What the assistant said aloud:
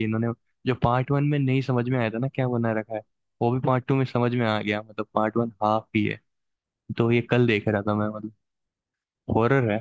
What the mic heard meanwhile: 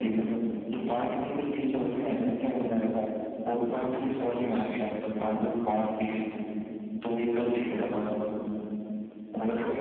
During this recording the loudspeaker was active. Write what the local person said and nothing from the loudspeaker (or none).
none